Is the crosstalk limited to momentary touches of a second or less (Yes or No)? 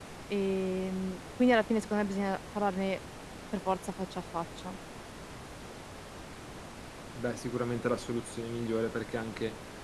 Yes